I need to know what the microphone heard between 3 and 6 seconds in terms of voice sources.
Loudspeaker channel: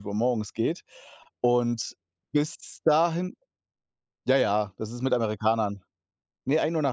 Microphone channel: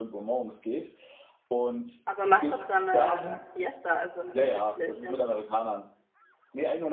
both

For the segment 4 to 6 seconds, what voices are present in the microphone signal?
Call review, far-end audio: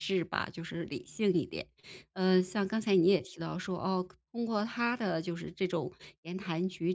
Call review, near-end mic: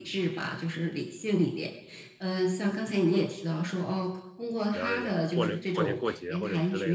both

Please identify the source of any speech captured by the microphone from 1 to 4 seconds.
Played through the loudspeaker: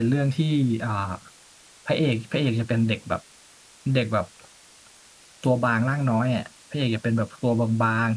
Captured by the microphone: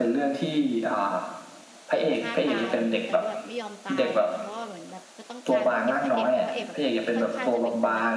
both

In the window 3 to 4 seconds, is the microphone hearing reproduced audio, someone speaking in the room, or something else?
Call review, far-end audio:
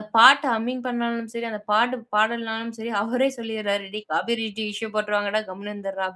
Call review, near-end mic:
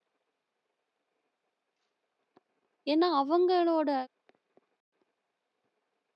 user only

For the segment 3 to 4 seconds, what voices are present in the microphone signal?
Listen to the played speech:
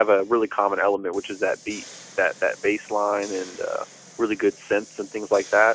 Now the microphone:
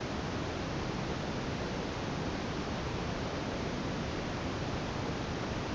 neither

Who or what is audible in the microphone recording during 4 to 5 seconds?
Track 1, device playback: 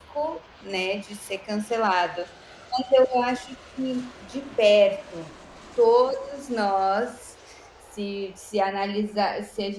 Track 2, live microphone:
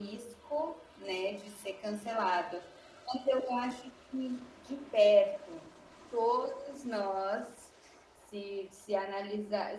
echo only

